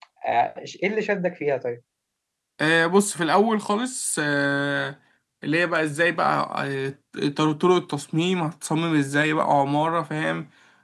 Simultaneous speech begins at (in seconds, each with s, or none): none